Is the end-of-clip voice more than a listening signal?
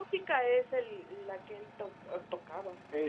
Yes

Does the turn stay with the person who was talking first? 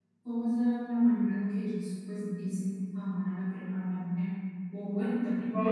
No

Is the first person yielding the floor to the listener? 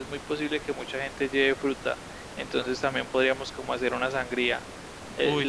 No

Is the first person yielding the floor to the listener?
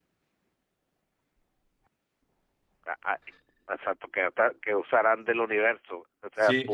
Yes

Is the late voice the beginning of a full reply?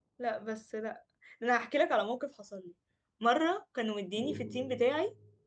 No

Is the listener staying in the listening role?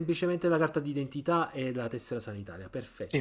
No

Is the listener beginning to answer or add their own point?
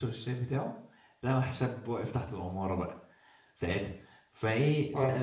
No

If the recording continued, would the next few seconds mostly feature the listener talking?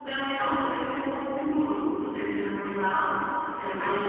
No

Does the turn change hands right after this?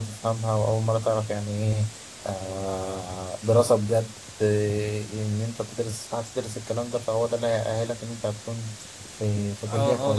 Yes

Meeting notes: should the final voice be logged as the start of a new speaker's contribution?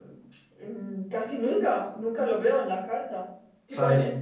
No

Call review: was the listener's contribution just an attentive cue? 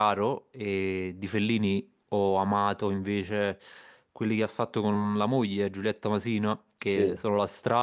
Yes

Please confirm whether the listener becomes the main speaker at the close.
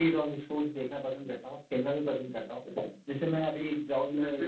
No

